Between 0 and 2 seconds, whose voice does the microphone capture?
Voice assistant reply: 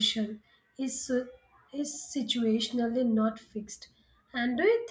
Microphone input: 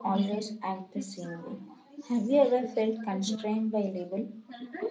both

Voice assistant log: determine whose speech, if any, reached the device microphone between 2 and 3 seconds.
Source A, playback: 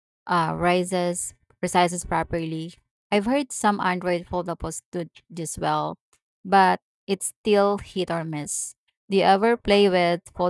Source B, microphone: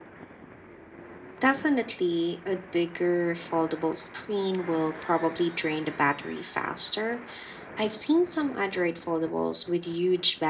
user only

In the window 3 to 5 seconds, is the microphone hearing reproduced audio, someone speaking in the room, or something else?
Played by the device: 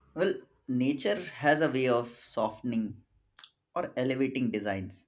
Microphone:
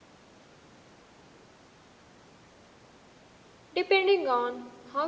user only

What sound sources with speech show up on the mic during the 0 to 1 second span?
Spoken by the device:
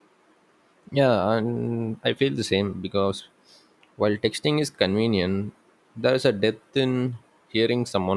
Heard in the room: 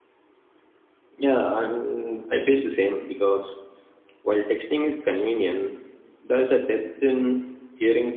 neither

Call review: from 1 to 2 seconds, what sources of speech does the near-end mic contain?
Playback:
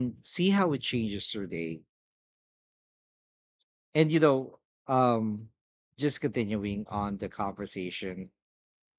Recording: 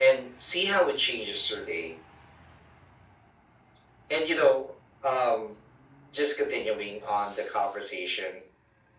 echo only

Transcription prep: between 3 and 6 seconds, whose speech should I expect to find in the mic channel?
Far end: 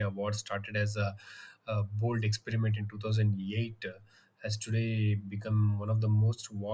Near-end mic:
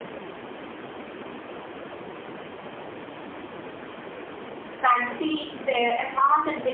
user only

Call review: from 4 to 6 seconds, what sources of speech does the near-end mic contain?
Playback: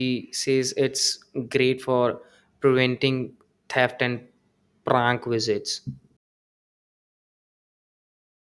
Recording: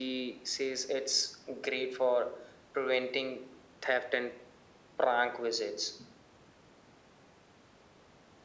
echo only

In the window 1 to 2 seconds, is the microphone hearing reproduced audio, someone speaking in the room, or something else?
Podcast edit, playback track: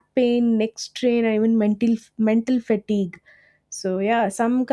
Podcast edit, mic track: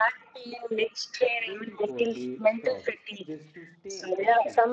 both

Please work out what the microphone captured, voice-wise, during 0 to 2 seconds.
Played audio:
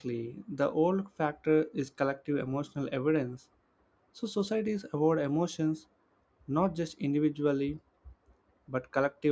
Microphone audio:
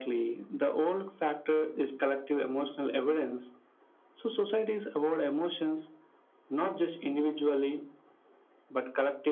echo only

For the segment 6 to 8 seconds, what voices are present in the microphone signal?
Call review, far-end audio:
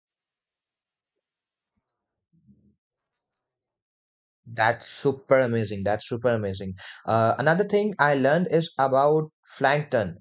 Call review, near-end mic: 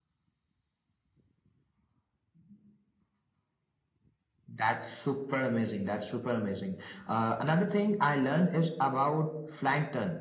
echo only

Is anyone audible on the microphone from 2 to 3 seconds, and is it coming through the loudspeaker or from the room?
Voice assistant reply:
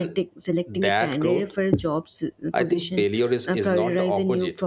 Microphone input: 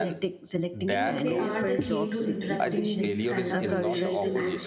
both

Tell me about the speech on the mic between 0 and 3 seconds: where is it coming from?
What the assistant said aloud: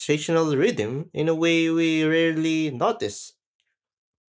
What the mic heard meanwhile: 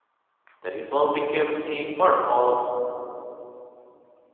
user only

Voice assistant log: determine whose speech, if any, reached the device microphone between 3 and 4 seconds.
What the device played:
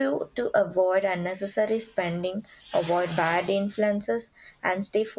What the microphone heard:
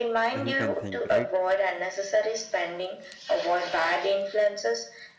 echo only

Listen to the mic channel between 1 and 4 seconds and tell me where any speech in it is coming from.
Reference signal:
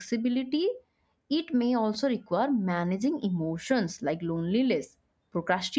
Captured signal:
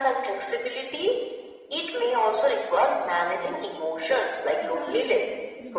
echo only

